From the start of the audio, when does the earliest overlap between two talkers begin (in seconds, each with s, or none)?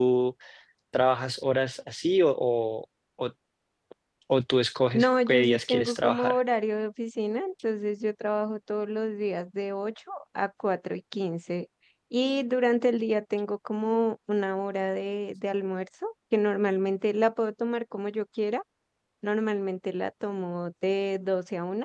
4.9 s